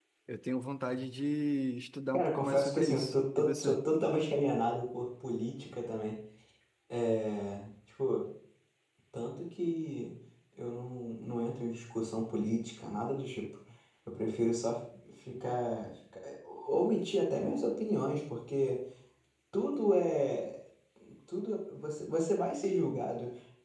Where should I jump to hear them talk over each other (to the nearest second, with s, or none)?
2 s